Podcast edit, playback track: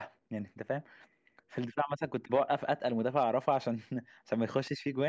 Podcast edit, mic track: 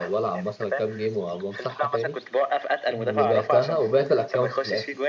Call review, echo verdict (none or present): present